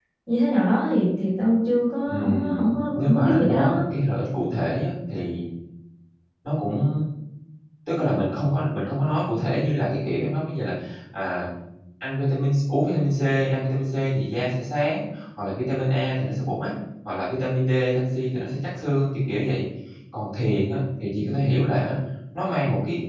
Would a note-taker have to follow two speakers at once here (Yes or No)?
Yes